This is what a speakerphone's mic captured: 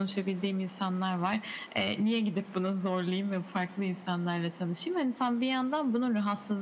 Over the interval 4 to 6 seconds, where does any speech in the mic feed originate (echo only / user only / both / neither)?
echo only